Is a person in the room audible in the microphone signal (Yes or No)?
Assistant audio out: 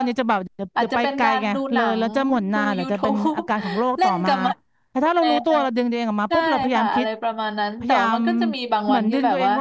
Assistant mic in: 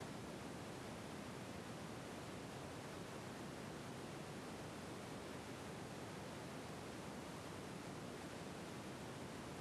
No